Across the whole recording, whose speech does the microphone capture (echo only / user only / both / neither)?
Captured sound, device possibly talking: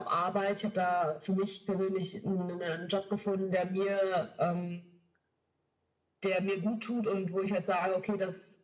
echo only